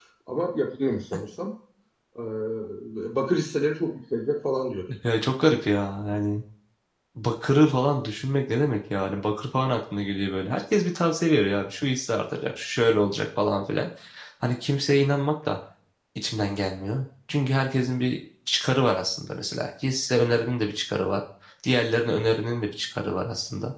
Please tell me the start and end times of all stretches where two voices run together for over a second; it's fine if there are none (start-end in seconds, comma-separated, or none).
none